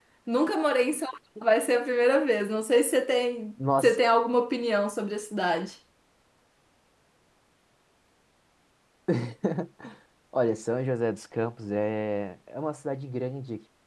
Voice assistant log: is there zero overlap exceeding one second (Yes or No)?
Yes